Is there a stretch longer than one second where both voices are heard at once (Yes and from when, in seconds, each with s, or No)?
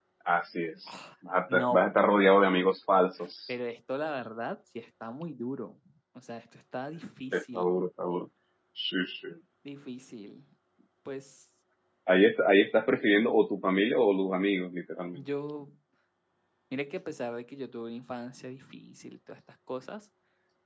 No